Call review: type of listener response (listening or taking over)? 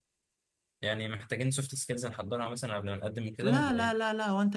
taking over